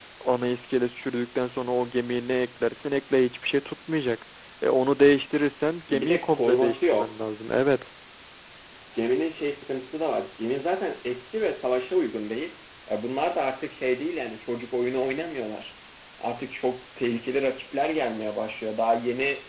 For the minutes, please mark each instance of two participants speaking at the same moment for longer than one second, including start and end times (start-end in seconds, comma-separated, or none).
5.9-7.1